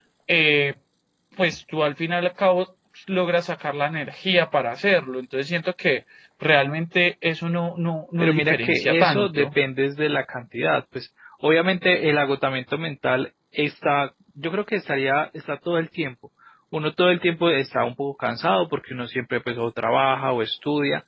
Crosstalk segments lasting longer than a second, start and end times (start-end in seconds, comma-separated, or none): 8.2-9.5